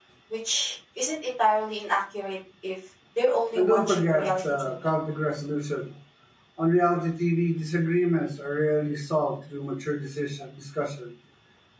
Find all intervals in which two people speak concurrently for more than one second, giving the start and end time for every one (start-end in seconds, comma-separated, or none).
3.5-4.9